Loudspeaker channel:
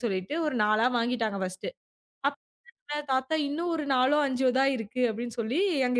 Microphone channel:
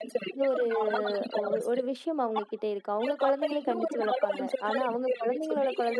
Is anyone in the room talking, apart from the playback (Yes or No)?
Yes